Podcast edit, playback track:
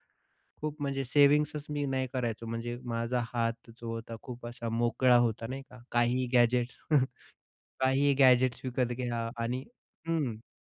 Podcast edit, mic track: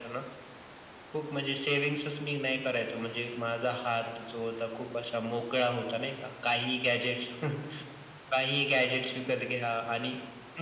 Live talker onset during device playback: none

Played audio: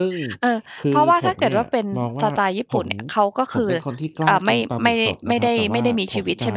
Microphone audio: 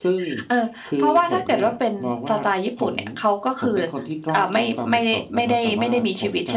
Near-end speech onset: none

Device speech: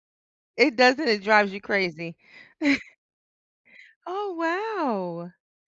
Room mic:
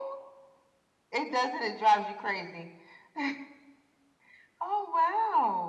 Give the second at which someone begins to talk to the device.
none

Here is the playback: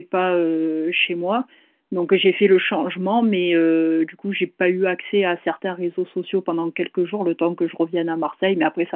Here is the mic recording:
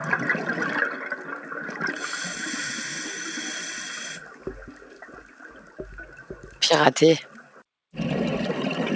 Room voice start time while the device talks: 6.6 s

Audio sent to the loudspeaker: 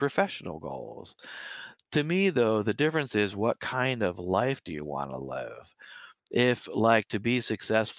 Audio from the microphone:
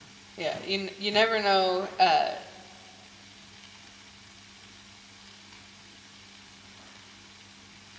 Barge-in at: 0.4 s

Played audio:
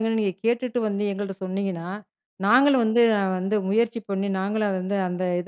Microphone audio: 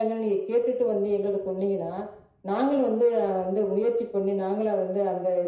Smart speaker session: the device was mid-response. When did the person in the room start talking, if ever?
none

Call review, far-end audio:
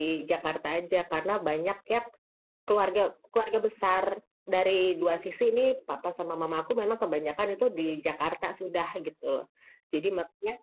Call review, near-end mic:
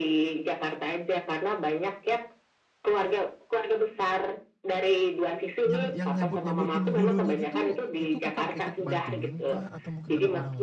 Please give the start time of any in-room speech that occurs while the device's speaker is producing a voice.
5.6 s

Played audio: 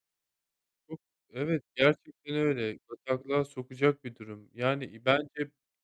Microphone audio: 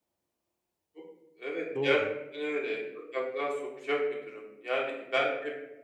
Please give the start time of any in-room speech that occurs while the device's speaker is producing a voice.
1.7 s

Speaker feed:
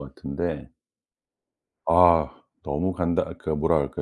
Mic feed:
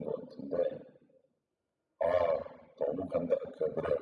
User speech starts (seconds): none

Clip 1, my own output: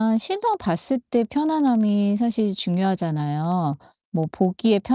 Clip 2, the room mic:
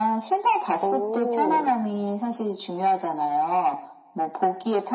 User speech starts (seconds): 0.8 s

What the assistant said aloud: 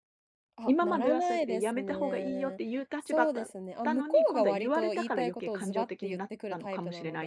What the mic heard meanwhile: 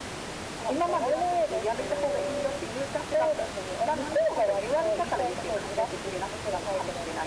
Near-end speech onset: none

